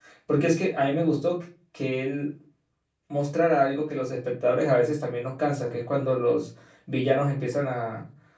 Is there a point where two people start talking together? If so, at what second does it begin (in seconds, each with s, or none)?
none